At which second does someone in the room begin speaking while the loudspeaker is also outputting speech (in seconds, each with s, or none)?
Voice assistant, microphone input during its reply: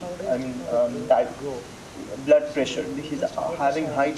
none